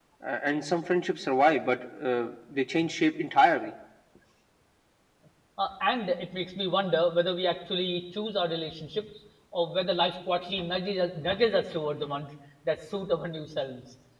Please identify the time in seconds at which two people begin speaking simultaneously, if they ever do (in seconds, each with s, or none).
none